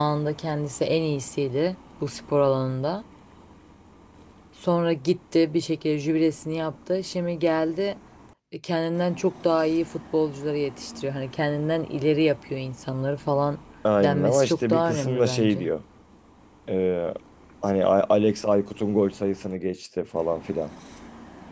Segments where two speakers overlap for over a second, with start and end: 14.0-15.7

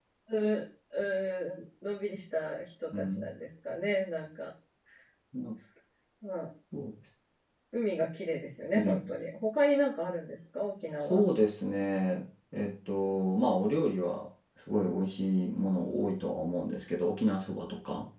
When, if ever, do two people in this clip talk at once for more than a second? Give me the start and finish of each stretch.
none

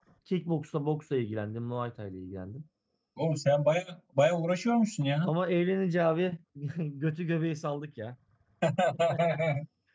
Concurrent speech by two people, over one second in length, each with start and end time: none

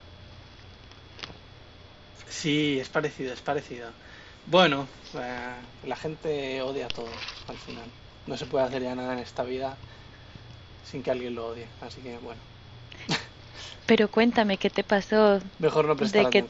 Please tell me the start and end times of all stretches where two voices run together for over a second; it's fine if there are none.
none

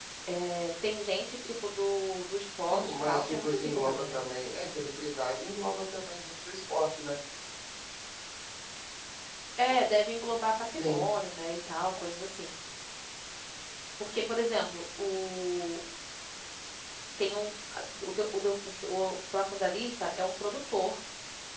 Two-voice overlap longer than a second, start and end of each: 2.7-4.2

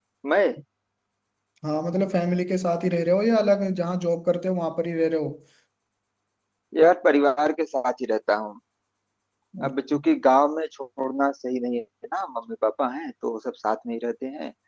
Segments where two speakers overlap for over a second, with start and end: none

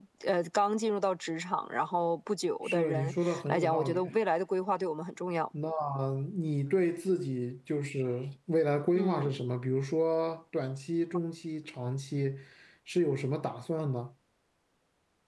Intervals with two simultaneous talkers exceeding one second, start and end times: 2.6-4.1

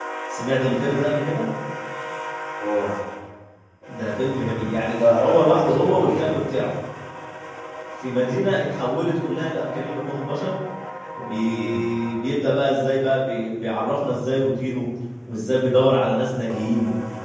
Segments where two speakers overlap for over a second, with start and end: 4.8-6.3

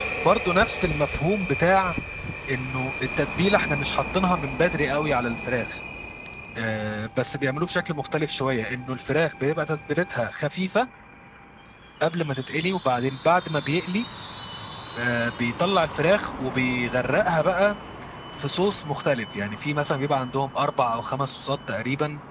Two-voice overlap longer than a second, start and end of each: none

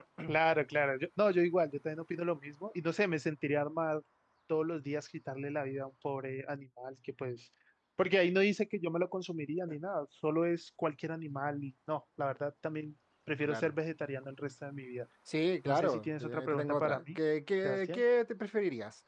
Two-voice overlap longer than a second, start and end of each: 15.6-17.2

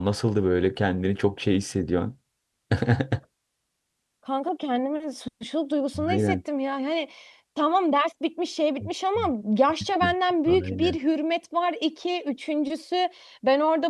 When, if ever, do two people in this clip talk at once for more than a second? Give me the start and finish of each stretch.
none

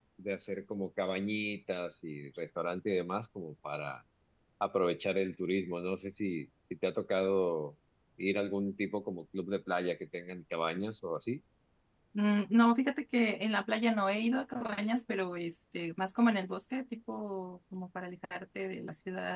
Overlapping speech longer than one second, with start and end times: none

